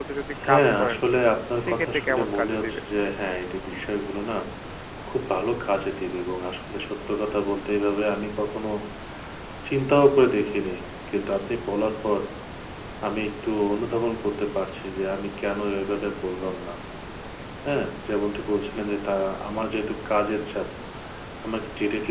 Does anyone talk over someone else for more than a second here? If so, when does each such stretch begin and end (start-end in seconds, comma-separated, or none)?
1.6-2.8